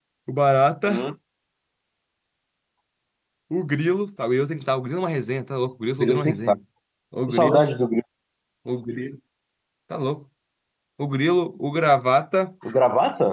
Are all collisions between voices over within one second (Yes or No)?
Yes